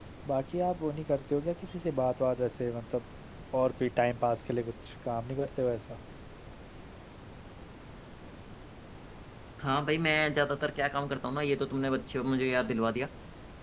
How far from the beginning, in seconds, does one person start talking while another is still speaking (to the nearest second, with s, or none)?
none